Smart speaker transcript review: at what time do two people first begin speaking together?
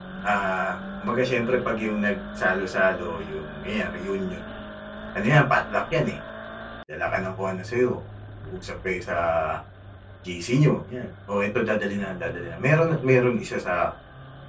none

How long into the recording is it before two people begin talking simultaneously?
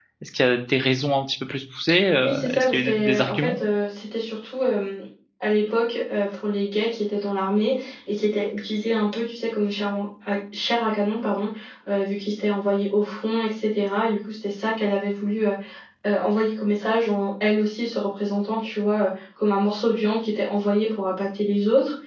2 s

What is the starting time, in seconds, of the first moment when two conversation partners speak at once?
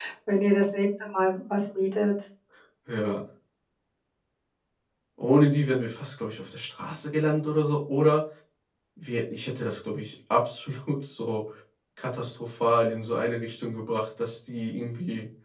none

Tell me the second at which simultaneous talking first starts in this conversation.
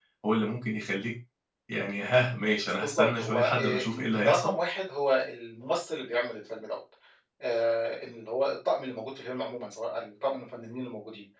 3 s

